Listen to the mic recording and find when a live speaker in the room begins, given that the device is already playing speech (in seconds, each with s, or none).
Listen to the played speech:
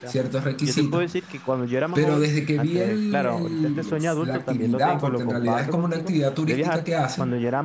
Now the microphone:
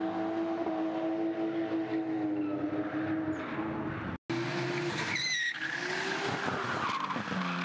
none